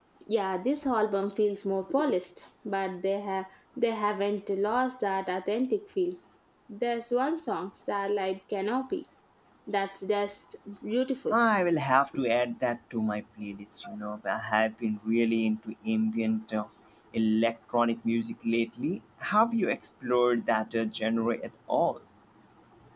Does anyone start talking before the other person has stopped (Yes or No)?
No